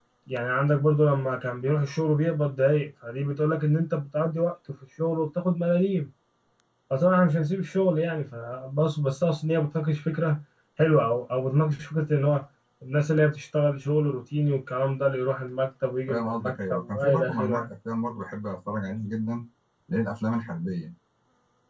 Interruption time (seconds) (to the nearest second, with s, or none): 16 s